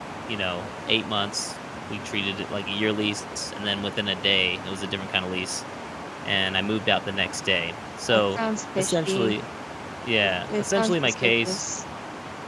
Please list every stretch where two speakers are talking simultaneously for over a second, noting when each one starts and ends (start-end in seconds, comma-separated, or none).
10.2-11.7